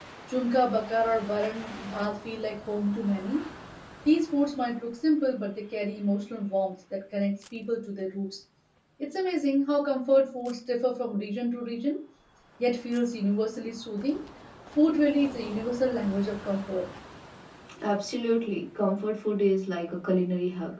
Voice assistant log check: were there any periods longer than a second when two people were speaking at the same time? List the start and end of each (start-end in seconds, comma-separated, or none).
none